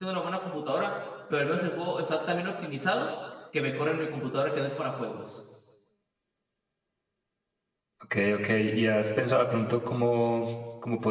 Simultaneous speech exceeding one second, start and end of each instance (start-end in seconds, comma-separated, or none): none